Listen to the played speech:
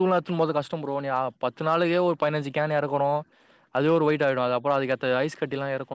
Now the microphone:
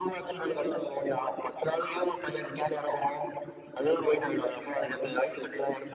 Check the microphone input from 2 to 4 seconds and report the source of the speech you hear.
echo only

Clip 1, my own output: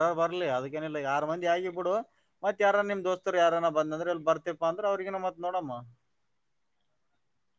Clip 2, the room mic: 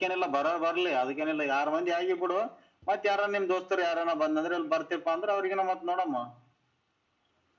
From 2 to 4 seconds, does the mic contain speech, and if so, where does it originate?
echo only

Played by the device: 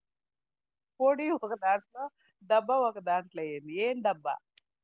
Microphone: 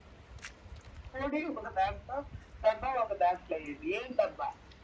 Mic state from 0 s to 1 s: neither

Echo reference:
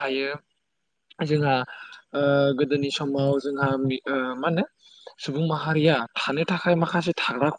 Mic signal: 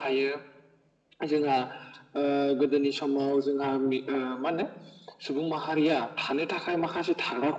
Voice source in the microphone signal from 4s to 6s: echo only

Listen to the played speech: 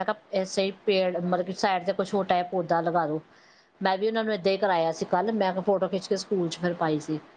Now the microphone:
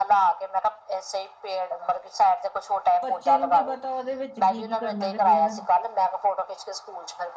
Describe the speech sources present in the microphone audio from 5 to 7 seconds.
both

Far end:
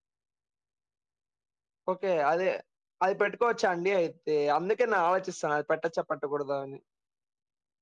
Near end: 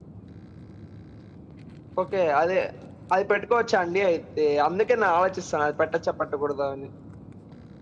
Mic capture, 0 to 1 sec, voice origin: neither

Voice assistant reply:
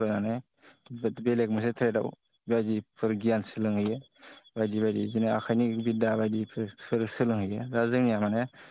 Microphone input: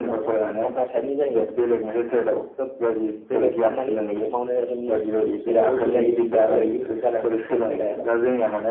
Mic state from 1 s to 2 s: both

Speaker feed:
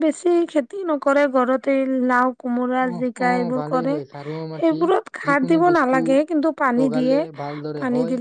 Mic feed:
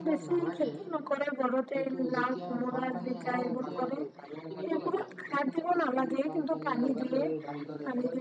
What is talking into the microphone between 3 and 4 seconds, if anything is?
both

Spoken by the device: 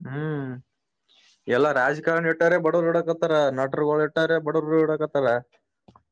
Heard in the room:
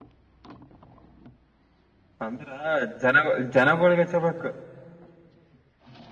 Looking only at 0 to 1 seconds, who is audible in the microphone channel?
neither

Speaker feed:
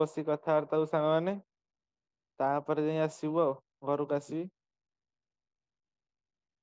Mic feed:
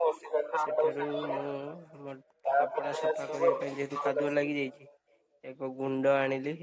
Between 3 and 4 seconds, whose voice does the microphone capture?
both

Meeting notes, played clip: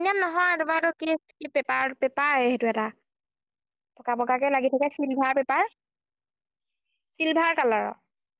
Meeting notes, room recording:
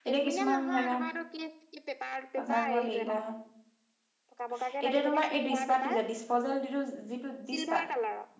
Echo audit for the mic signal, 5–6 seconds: both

